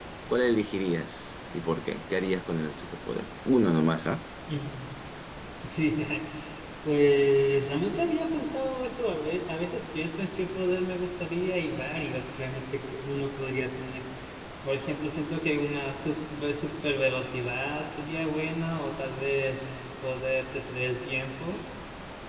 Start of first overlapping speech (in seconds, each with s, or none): none